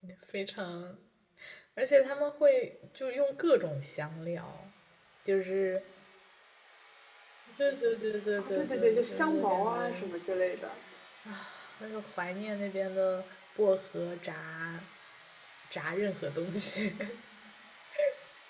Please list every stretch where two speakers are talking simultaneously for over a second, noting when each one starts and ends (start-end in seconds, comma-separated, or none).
8.4-10.1